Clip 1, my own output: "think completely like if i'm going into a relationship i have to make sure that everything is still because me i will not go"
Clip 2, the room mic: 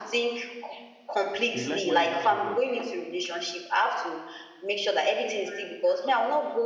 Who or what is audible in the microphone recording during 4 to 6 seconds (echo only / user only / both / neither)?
echo only